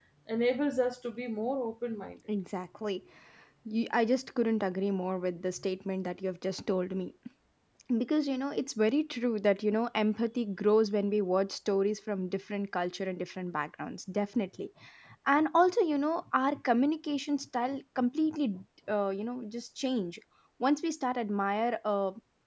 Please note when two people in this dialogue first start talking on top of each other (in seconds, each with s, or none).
none